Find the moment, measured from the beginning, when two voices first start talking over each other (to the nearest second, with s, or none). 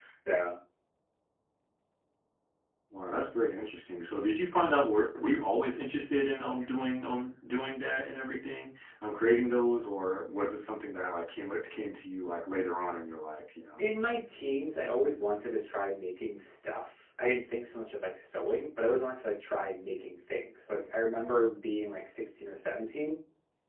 none